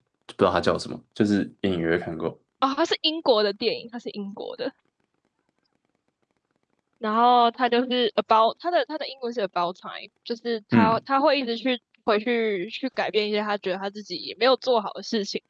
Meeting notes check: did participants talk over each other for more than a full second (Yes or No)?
No